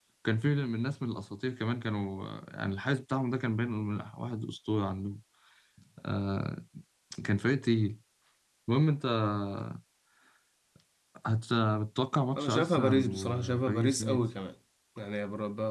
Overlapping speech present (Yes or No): Yes